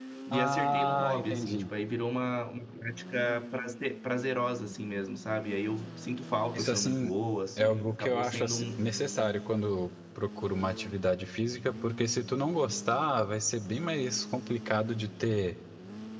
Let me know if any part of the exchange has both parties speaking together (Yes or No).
Yes